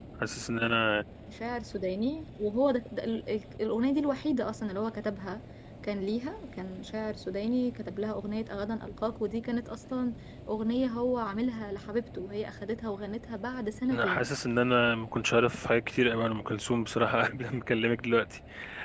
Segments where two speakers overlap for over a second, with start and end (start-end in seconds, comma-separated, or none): none